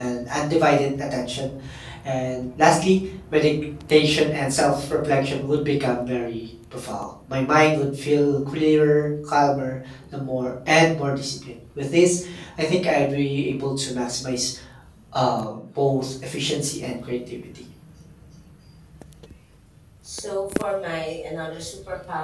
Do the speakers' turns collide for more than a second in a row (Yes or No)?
No